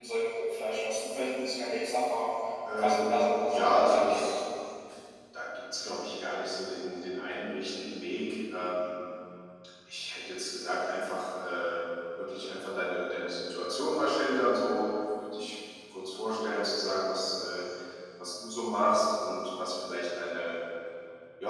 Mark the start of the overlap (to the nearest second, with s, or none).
3 s